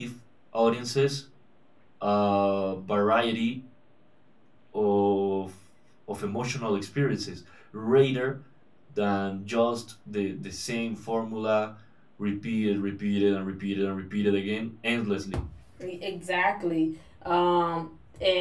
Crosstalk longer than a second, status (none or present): none